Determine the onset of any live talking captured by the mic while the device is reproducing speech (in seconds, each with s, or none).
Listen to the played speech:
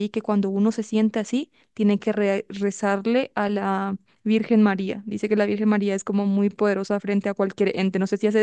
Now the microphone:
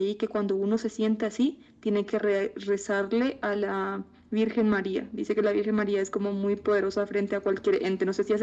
none